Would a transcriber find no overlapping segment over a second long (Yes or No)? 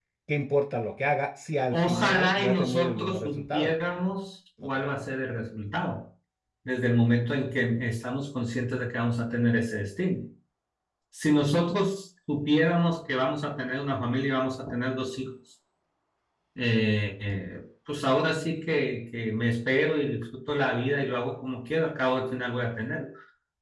No